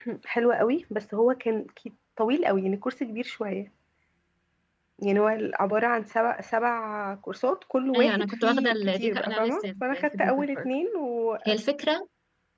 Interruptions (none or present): present